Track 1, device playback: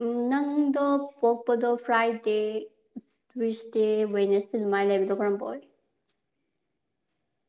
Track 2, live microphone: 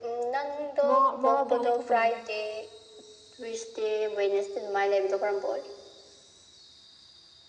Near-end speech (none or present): present